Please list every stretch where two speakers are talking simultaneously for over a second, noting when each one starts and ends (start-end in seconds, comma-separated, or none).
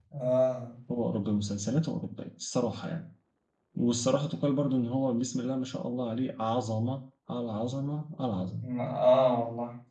none